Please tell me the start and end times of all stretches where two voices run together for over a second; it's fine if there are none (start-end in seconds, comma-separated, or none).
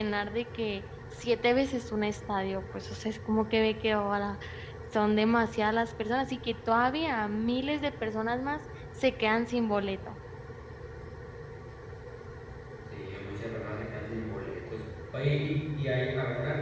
none